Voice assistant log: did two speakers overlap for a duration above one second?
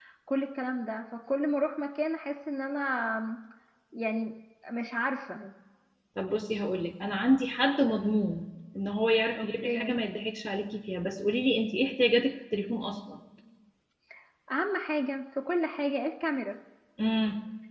No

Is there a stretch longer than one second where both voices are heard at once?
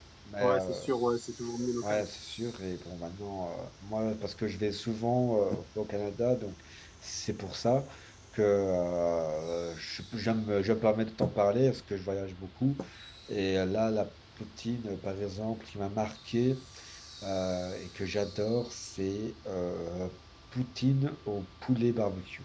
No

